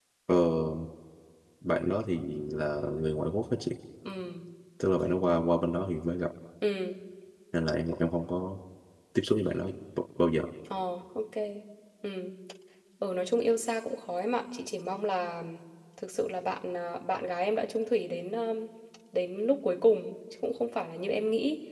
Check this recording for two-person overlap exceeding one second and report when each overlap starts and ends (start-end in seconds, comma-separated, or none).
none